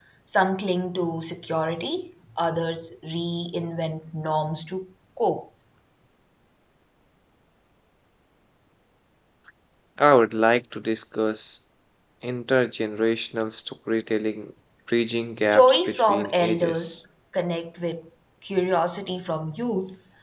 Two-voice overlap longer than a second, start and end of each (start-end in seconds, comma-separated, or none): 15.4-16.9